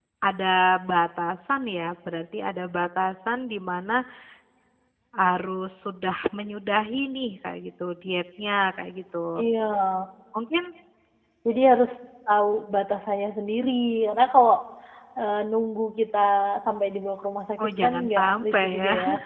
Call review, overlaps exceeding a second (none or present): present